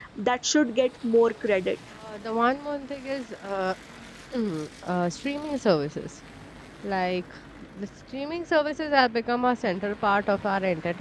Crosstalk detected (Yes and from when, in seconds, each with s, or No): No